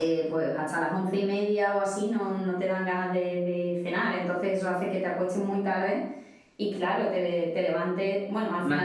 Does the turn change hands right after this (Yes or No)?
No